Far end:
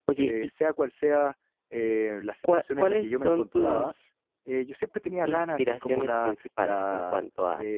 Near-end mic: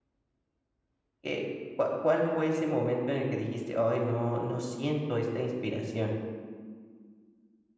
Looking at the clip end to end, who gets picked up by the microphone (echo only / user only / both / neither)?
user only